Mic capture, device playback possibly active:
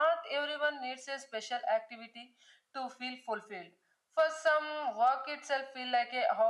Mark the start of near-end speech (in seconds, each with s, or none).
none